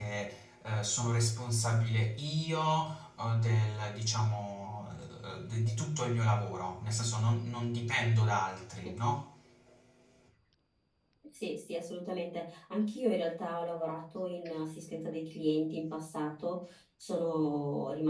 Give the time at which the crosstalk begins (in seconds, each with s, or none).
none